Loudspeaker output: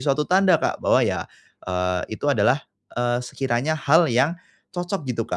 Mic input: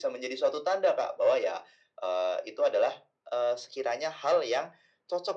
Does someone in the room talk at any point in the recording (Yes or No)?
No